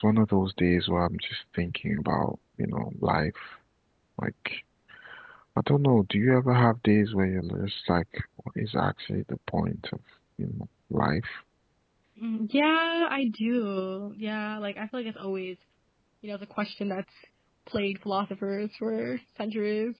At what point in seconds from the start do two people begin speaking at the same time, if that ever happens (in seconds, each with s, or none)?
none